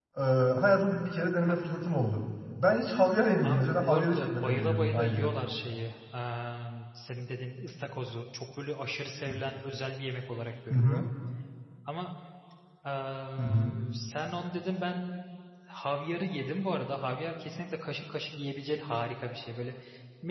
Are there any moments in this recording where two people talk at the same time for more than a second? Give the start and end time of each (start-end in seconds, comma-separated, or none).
3.4-5.3